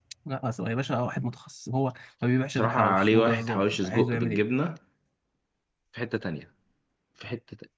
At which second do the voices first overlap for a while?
2.6 s

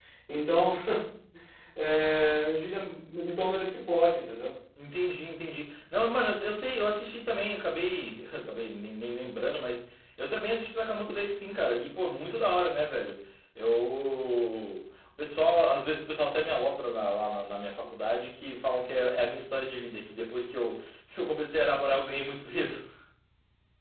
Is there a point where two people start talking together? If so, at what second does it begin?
none

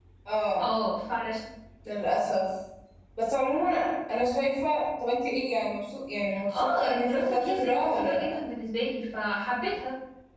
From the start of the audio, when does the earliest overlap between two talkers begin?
6.5 s

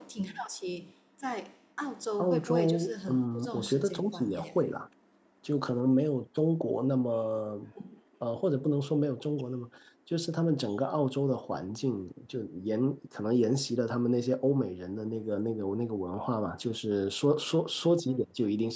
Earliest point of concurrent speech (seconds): 2.2 s

